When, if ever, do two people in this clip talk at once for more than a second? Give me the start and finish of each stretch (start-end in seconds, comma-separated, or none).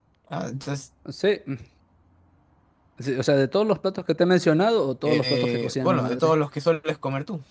5.0-6.3